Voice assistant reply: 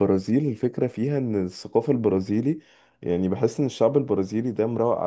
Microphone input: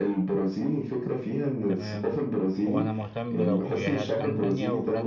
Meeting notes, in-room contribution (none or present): present